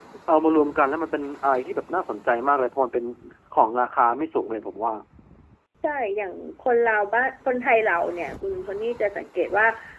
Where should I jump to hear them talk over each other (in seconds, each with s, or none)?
none